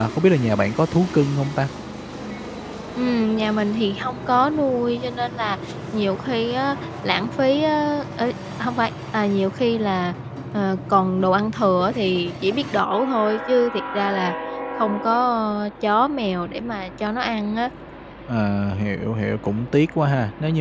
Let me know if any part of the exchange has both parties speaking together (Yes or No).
No